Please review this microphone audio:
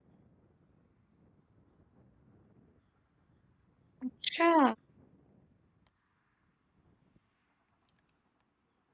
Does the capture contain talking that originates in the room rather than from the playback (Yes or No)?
Yes